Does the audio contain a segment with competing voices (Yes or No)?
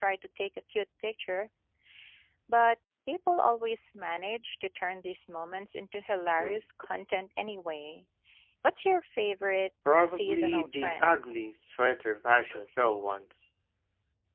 Yes